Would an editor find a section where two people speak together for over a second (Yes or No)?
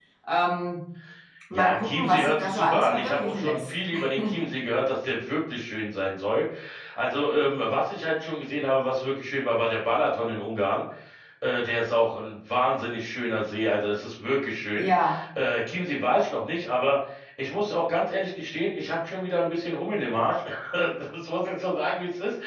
Yes